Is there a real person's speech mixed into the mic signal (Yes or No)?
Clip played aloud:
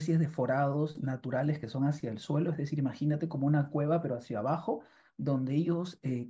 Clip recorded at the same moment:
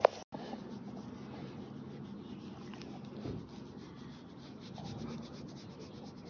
No